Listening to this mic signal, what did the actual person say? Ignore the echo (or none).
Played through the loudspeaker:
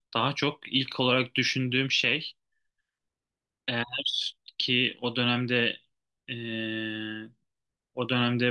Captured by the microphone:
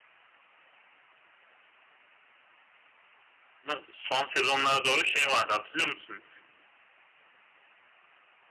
ama son sezonlara doğru şey vardı hatırlıyor musun?